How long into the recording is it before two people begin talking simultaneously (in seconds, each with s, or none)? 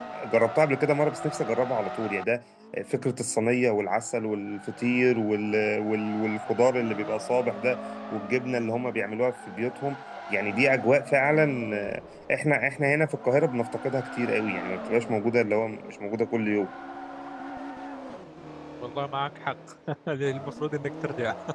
none